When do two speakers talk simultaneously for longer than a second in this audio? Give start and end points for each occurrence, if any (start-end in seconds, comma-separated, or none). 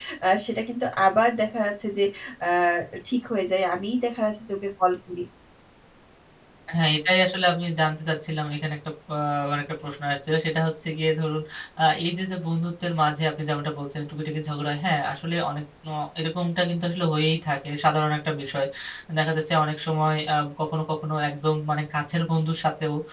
none